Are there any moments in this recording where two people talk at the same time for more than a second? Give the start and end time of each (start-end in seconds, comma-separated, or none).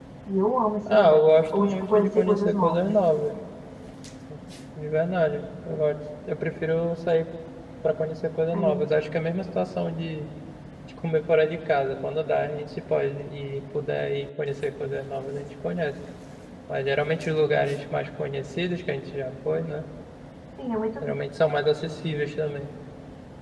0.9-2.9